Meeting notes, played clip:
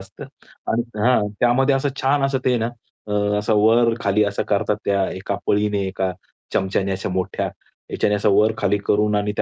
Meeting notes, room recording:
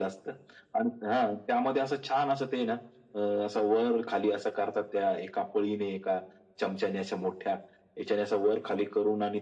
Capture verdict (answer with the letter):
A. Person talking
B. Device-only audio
B